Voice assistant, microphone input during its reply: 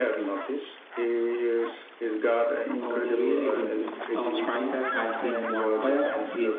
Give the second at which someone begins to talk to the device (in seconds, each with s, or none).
2.8 s